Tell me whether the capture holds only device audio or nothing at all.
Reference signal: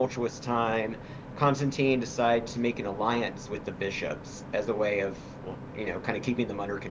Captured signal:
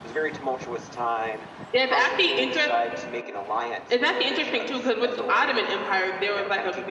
No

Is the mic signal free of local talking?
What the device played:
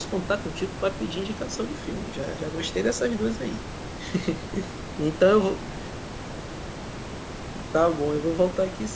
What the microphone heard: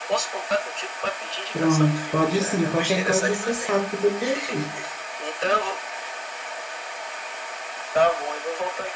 No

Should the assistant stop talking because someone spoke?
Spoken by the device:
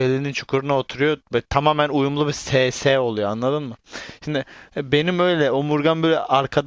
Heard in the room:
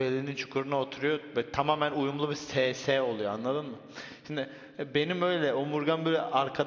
No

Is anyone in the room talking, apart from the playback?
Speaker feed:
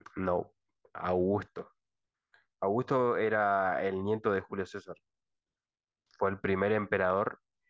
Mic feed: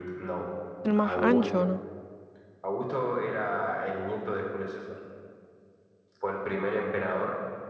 Yes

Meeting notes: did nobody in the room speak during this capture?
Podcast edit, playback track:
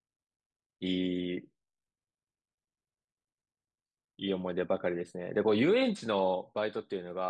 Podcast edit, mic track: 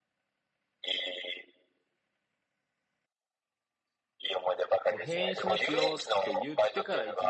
No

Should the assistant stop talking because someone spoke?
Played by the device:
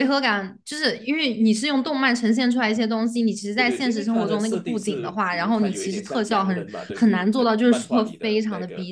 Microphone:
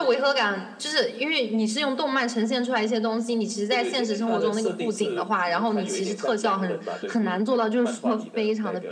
No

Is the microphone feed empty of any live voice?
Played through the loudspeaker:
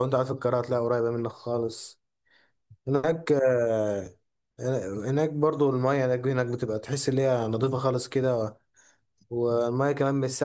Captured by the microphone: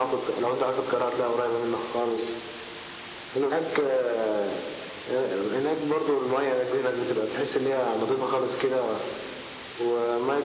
Yes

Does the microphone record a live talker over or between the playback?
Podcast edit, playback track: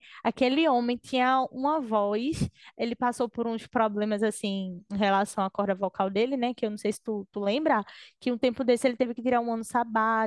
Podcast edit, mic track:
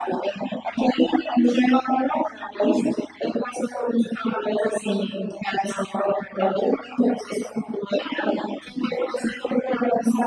No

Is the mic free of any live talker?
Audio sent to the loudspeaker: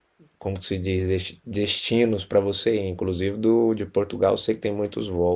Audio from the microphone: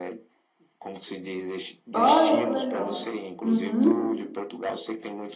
No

